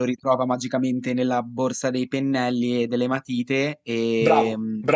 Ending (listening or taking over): taking over